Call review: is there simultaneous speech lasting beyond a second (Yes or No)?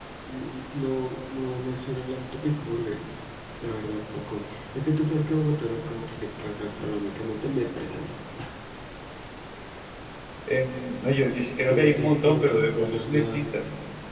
Yes